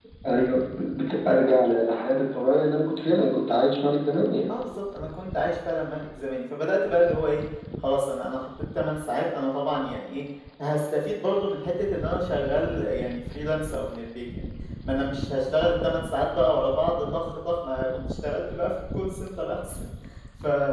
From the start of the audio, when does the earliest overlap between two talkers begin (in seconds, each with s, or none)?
none